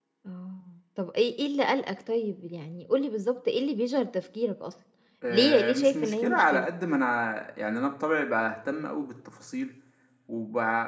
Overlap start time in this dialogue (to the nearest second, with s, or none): 5 s